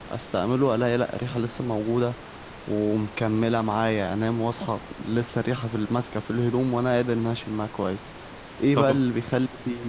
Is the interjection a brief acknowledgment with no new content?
Yes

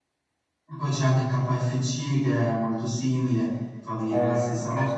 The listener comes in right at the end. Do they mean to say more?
Yes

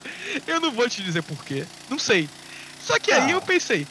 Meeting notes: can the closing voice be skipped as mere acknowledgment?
Yes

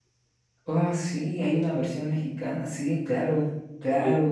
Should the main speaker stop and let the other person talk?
Yes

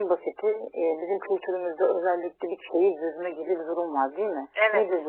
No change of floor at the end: Yes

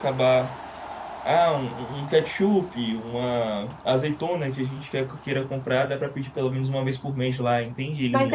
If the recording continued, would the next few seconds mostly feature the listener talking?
Yes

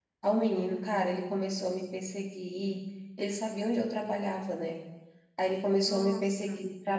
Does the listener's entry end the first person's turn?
No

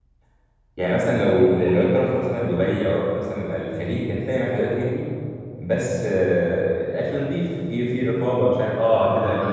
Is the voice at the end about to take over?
No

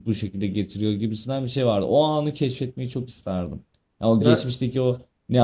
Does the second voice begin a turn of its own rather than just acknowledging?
No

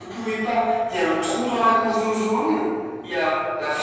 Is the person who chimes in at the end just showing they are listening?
Yes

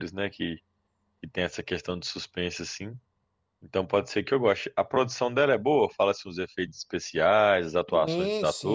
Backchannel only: No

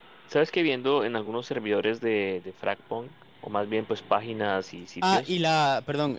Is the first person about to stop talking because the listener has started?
Yes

